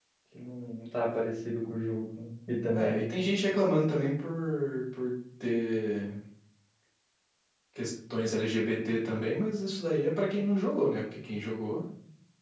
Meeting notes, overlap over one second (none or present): none